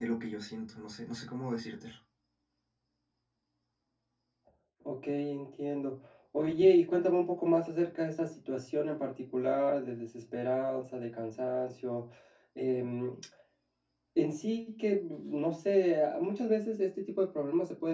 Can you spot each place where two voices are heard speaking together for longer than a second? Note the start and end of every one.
none

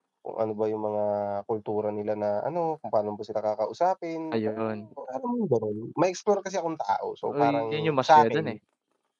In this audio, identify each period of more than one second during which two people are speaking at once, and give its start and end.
7.3-8.6

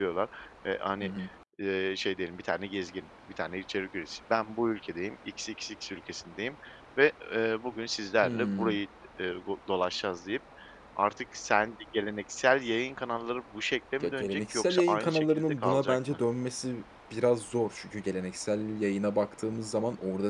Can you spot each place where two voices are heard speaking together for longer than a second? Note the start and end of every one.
14.0-16.2

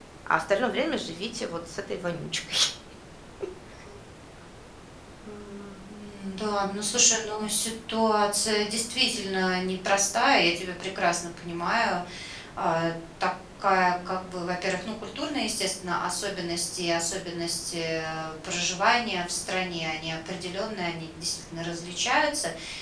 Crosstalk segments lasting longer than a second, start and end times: none

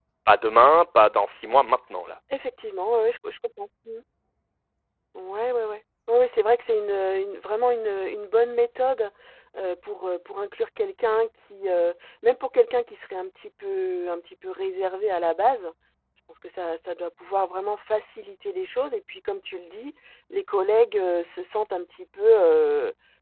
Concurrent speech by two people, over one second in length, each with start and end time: none

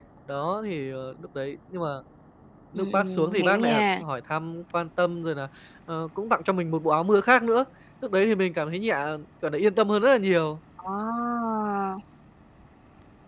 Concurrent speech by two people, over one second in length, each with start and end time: 2.8-4.0

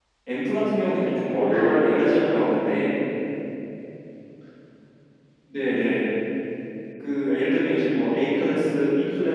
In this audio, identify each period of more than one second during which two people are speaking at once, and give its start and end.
1.0-2.5

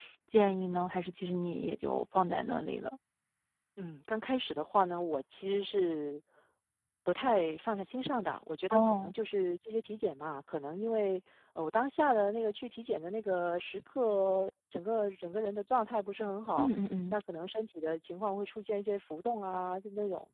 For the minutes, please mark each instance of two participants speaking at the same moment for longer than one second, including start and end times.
none

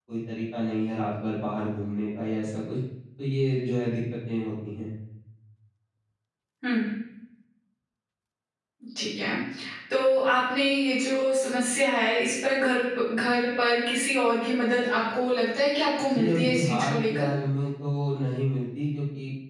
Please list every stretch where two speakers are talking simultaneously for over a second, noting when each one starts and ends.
16.0-17.3

